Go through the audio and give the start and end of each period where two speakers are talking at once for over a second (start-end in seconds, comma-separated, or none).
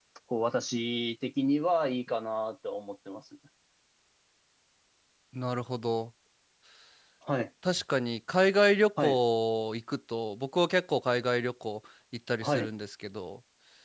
none